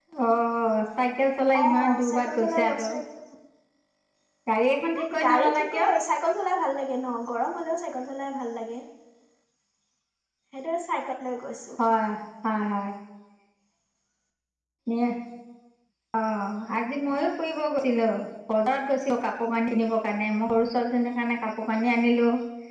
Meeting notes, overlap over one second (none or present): present